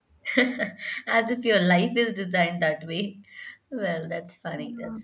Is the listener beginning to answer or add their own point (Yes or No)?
No